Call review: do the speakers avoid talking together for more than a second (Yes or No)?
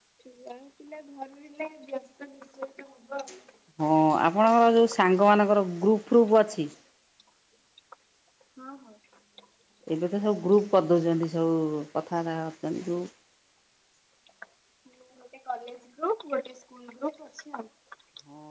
Yes